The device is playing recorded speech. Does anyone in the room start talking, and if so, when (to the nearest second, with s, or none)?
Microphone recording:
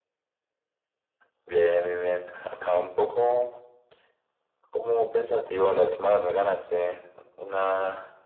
none